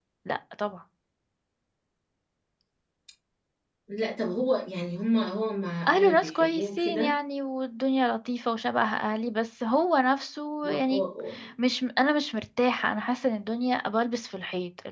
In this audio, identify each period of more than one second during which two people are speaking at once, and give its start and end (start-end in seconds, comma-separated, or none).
5.9-7.1